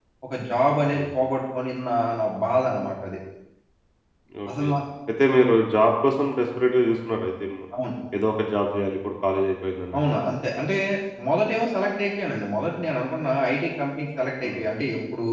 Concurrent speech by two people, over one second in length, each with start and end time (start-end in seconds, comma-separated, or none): none